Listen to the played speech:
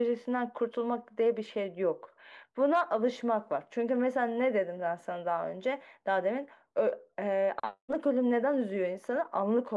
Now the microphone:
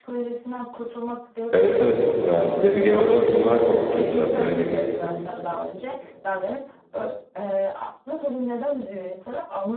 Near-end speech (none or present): present